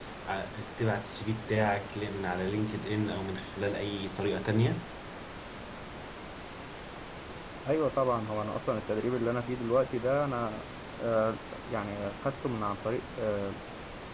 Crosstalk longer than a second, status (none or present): none